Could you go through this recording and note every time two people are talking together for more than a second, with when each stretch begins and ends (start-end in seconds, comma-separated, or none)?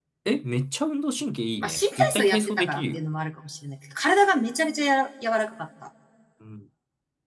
1.6-3.0